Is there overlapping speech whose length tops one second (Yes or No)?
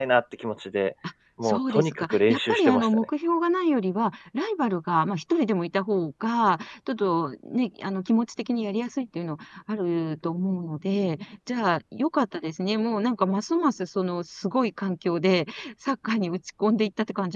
Yes